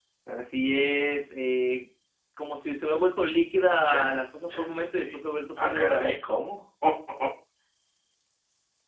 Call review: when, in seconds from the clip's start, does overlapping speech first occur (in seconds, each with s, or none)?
3.7 s